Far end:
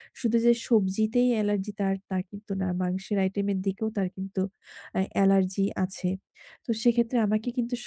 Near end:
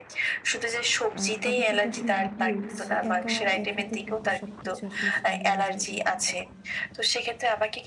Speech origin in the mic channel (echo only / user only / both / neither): both